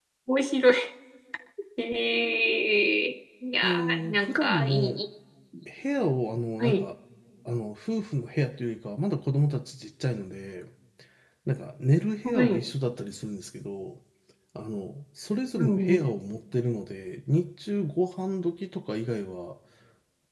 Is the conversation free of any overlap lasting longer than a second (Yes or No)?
No